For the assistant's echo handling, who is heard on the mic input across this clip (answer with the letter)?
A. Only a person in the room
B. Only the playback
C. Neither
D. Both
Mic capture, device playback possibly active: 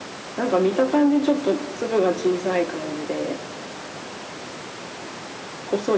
B